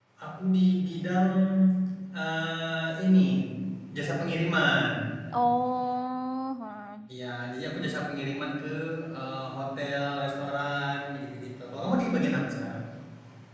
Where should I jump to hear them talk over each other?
none

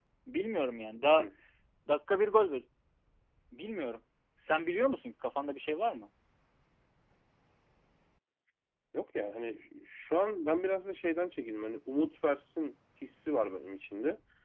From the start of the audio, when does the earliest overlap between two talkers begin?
none

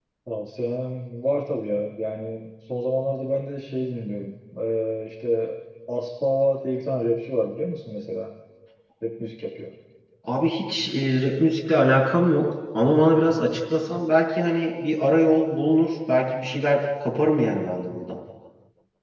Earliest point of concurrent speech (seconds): none

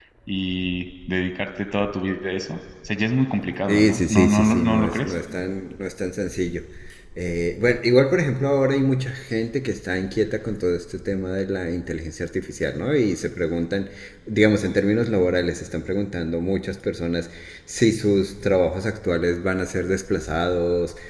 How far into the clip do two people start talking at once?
4 s

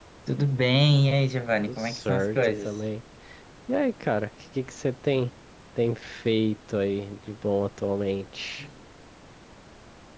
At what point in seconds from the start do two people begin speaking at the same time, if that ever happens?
2 s

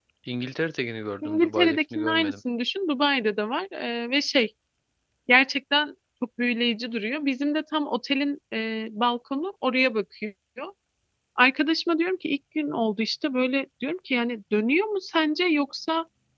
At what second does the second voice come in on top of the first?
1 s

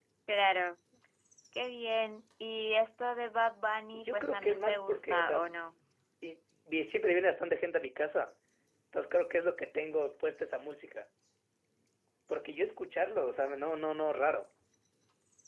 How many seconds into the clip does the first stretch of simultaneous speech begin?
4 s

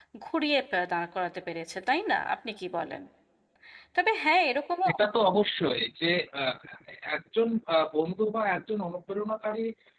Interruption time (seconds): none

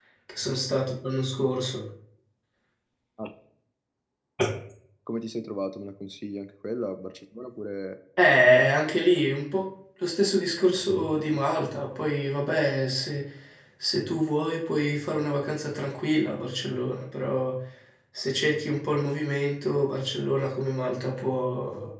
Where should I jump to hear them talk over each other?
none

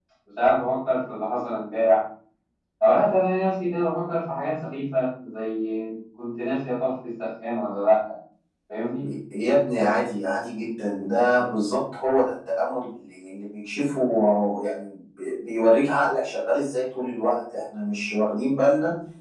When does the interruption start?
none

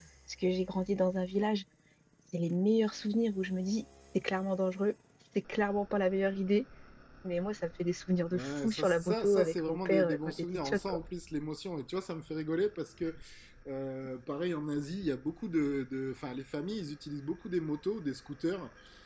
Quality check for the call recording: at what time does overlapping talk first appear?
8 s

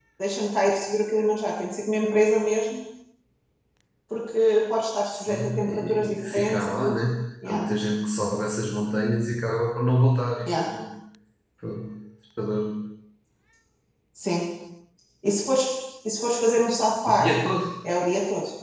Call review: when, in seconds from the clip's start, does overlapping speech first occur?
5 s

